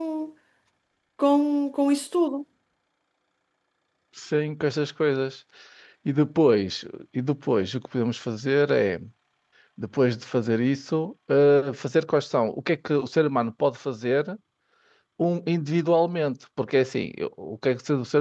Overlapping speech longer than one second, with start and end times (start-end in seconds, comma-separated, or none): none